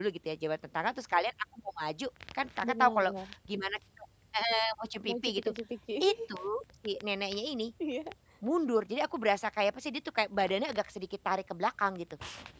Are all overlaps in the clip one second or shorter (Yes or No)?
Yes